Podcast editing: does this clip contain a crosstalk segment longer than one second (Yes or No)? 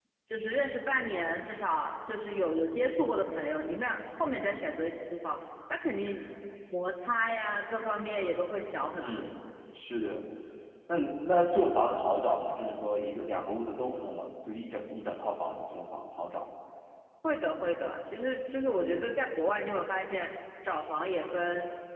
No